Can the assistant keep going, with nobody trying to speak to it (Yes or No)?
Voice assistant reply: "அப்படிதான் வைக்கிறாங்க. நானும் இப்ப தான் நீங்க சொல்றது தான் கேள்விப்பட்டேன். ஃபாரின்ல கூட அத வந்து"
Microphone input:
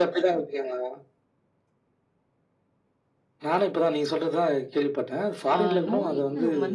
No